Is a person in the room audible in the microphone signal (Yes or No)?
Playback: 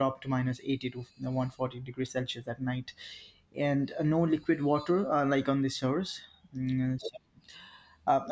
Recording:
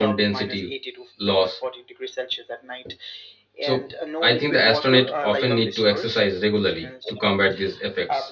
Yes